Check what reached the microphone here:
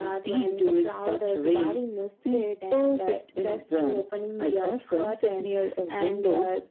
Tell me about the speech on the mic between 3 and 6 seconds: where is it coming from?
echo only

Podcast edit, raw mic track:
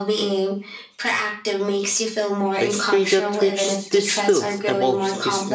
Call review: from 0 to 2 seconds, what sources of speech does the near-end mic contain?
echo only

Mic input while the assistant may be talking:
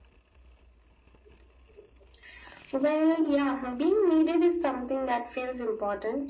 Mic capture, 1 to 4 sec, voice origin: echo only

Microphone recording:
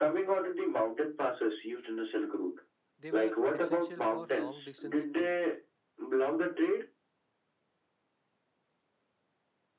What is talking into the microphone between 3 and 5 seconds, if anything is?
both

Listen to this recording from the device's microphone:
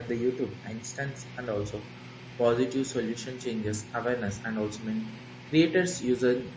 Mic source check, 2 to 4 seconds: user only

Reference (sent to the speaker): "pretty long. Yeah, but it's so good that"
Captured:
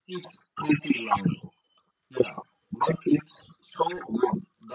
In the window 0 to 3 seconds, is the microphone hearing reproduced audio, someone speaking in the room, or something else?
echo only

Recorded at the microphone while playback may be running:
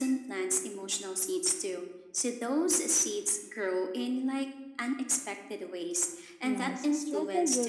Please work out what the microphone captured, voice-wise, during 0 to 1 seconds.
echo only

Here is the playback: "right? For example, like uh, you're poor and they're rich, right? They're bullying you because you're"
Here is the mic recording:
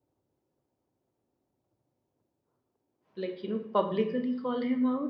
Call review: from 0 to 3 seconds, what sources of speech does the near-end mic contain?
neither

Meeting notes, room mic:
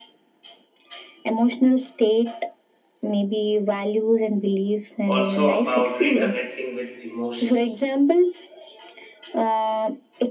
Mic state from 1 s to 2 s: echo only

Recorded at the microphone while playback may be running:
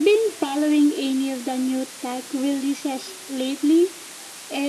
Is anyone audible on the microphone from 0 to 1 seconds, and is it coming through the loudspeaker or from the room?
echo only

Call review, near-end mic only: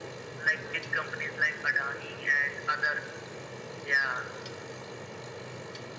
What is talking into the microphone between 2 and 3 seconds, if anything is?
echo only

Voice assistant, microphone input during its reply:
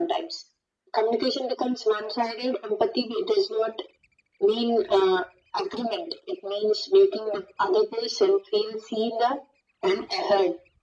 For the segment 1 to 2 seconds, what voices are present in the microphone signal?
echo only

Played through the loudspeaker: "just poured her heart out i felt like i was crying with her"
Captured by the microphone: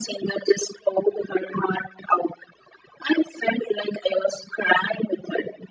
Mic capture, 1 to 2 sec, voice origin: echo only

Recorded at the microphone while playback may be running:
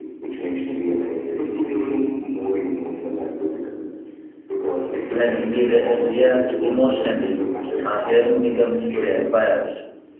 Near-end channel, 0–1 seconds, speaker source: echo only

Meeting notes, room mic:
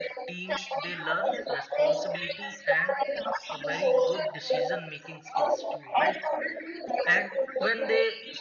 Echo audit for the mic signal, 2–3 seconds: both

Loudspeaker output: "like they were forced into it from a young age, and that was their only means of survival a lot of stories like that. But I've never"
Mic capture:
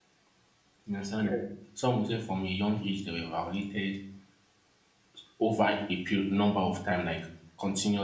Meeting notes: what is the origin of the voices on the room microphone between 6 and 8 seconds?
user only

